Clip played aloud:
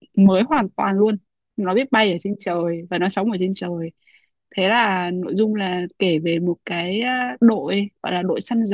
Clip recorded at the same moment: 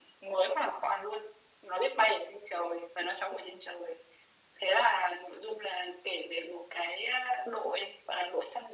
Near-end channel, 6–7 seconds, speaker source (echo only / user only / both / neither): echo only